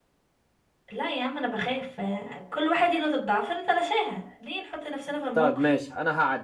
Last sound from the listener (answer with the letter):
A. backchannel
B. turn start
B